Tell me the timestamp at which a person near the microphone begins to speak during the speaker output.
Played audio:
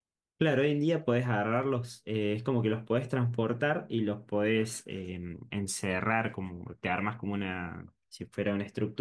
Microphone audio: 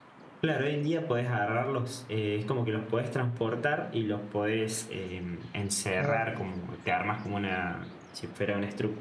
6.0 s

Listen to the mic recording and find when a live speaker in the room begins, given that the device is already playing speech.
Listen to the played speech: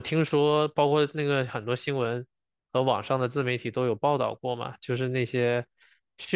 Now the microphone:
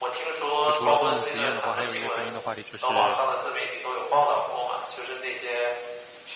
0.6 s

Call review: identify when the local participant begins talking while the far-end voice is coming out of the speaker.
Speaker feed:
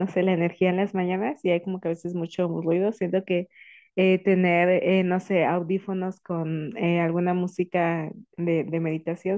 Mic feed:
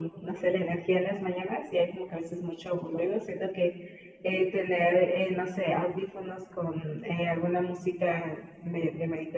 none

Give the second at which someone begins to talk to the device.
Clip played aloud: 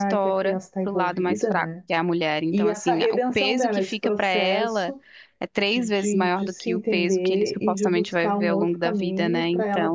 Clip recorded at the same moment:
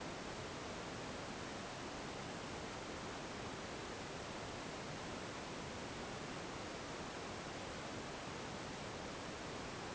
none

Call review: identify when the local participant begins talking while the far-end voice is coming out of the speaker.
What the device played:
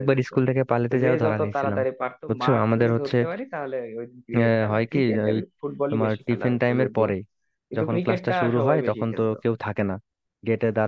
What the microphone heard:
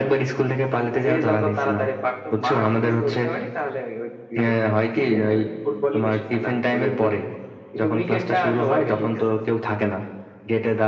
none

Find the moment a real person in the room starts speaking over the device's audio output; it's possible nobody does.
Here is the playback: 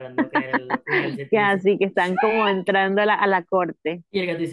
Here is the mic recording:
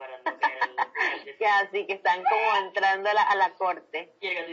none

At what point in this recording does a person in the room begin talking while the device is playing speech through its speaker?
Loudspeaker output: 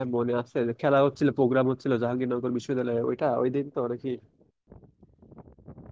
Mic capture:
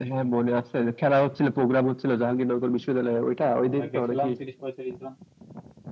3.7 s

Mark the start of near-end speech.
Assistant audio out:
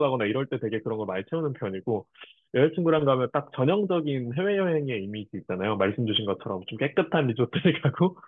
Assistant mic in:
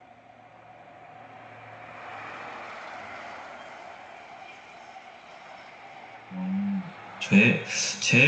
6.3 s

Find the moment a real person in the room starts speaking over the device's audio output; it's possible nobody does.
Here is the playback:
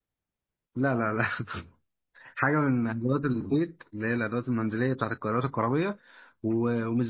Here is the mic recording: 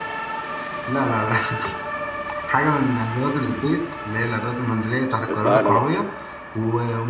5.2 s

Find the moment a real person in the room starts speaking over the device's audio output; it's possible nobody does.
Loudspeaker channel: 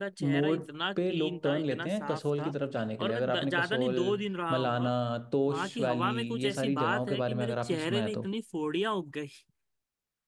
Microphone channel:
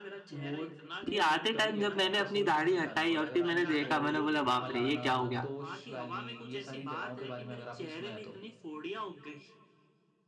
1.1 s

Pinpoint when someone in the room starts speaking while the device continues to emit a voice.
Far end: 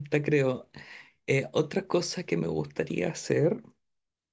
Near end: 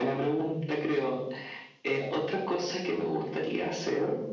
none

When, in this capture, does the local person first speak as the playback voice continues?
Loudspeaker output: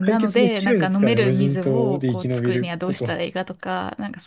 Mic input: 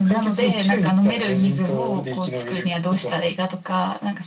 none

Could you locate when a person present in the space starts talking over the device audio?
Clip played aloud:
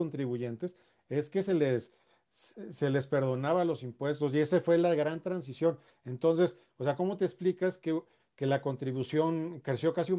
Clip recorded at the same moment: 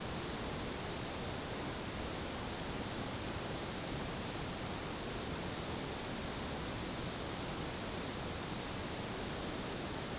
none

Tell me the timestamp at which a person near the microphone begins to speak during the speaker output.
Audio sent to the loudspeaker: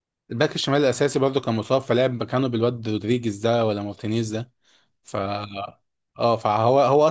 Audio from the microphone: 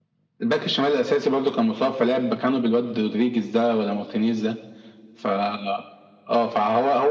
none

